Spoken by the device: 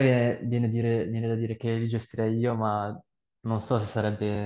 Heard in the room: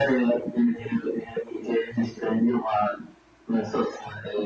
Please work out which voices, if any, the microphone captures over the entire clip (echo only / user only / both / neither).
echo only